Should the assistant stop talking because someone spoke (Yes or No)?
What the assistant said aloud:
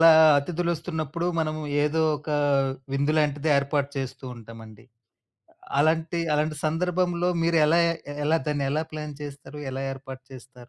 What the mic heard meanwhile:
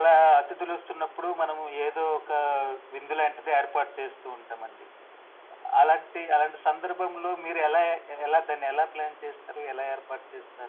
No